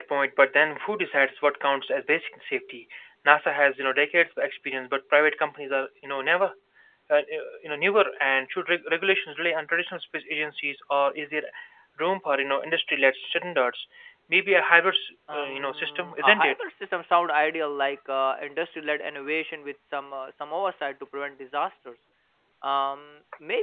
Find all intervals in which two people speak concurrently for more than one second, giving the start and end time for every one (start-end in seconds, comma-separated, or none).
15.3-16.6